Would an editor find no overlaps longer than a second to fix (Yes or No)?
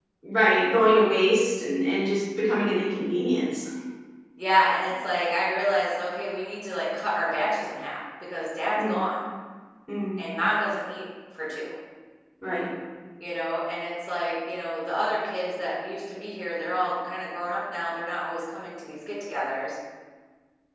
Yes